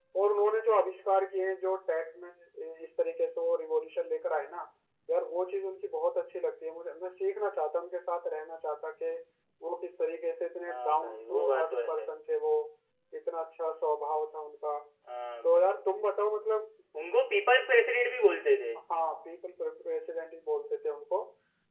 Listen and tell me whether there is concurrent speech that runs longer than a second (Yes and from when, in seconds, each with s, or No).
Yes, from 10.7 s